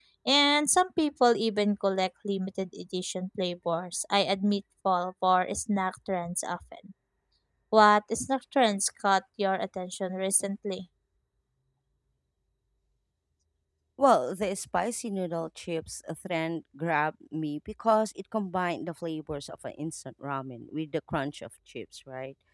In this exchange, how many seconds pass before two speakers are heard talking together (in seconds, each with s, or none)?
none